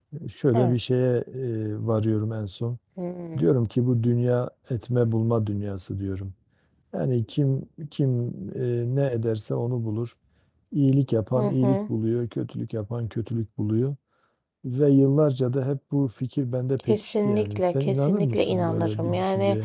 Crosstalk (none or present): present